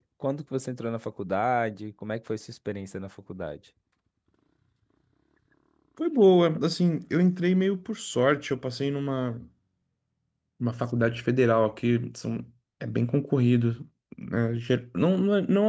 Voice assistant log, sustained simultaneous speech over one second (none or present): none